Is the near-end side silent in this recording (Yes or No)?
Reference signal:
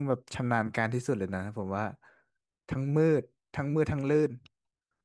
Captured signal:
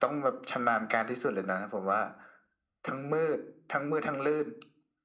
Yes